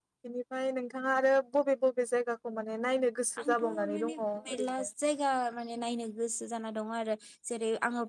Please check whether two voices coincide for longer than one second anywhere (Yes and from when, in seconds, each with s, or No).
Yes, from 3.4 s